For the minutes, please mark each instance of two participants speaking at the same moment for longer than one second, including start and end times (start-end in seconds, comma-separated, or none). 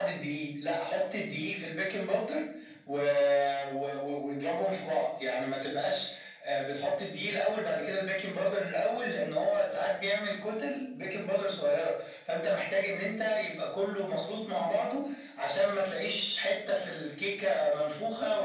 none